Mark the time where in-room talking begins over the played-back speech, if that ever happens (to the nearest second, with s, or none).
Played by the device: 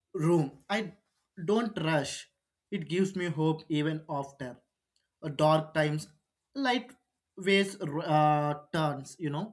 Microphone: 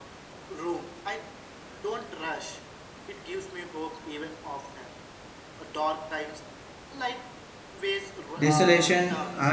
8 s